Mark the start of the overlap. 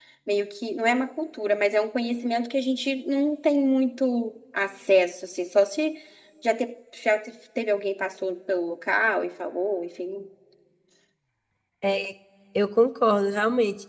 none

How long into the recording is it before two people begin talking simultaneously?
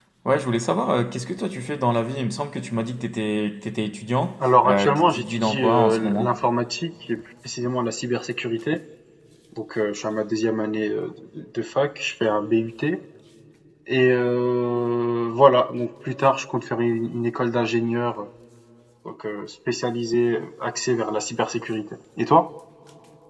4.6 s

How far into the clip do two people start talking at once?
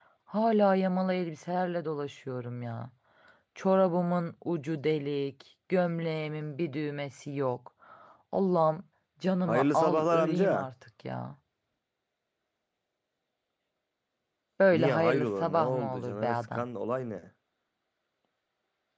9.4 s

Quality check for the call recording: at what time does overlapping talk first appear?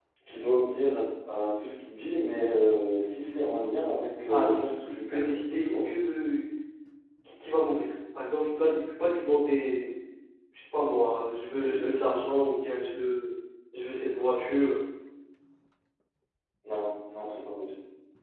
4.3 s

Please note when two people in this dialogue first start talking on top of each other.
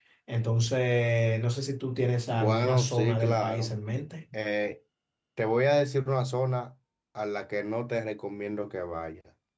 2.3 s

